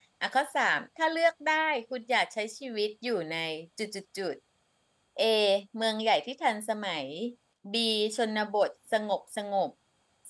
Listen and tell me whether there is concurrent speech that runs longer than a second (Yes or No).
No